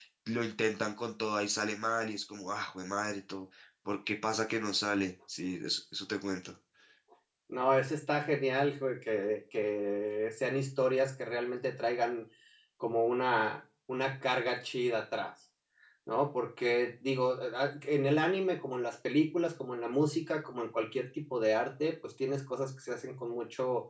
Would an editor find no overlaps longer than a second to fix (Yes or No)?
Yes